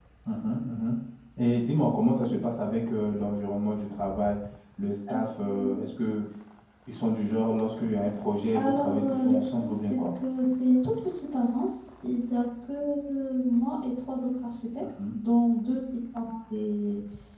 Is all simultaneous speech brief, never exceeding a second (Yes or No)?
No